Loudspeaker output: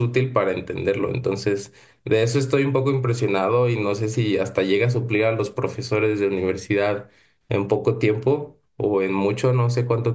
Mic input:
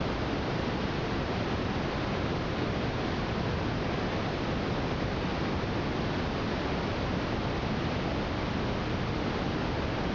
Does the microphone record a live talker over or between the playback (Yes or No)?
No